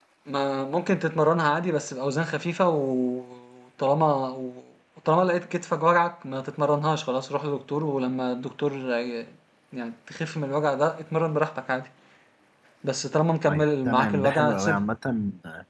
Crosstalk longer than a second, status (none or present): present